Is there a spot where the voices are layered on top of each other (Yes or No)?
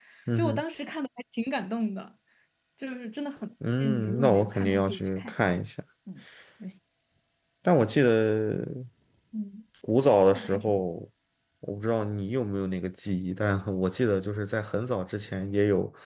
Yes